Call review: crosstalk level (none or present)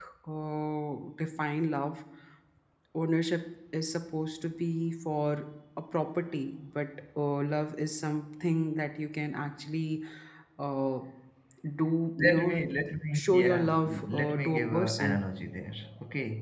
present